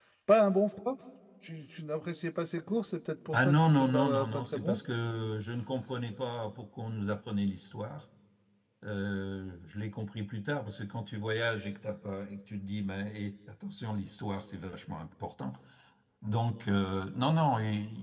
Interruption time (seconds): 3.3 s

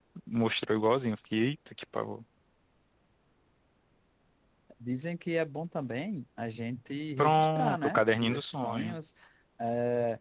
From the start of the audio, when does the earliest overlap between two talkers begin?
7.2 s

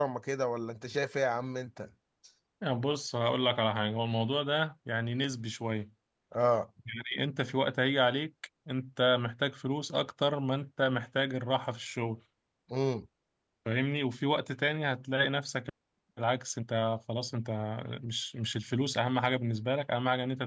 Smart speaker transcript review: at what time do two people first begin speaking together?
none

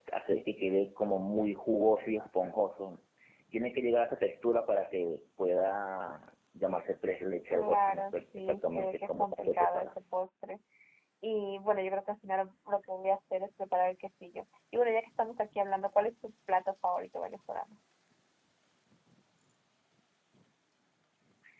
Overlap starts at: 7.5 s

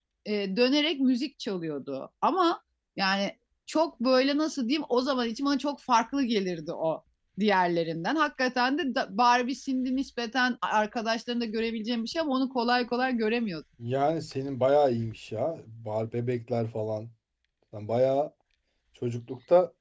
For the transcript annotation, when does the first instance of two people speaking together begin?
none

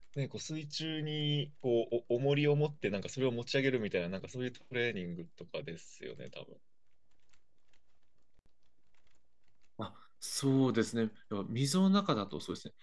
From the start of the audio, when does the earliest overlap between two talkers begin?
none

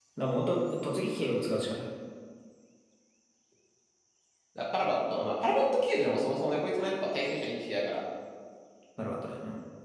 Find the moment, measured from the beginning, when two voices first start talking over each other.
none

